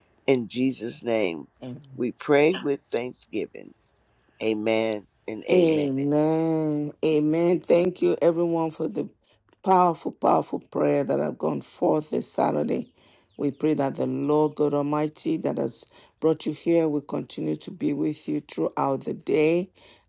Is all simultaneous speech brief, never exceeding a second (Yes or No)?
Yes